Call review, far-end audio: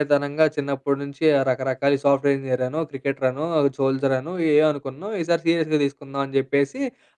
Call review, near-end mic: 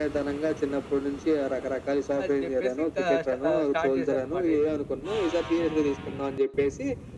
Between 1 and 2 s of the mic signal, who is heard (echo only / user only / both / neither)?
echo only